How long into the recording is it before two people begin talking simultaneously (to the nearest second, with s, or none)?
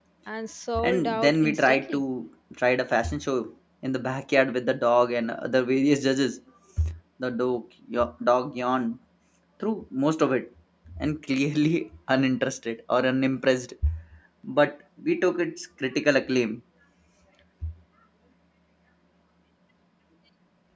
1 s